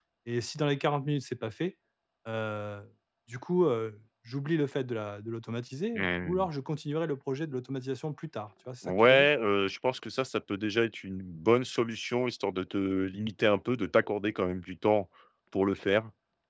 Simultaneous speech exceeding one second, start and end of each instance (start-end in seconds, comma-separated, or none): none